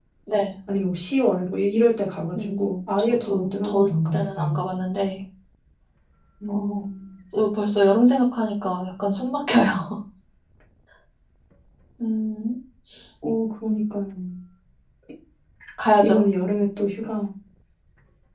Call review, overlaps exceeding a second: present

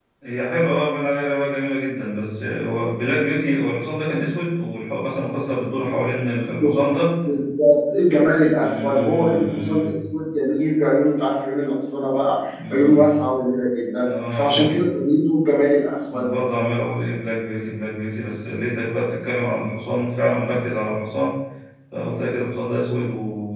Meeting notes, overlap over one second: present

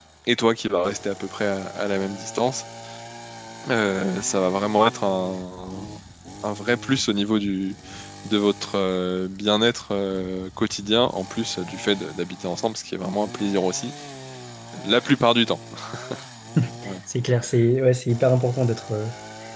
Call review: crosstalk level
none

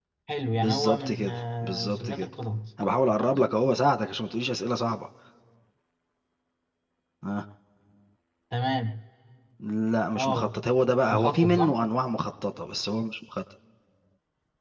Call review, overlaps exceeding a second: present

